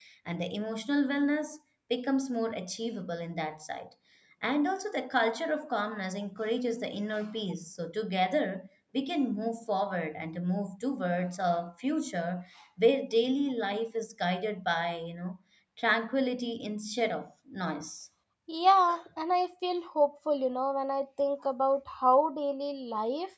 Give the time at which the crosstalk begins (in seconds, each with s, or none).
none